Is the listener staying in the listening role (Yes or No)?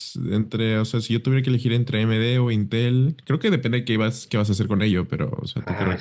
No